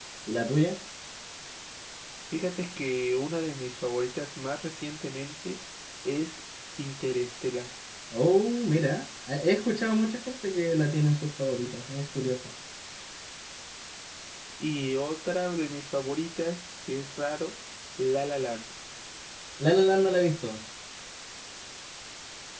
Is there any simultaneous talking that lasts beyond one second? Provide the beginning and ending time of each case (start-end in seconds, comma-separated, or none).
none